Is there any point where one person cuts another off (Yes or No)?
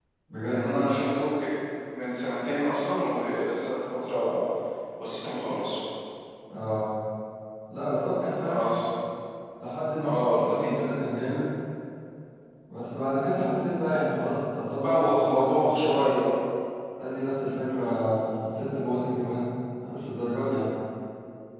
Yes